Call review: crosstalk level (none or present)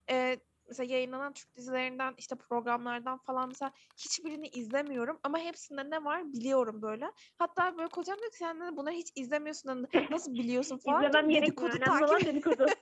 present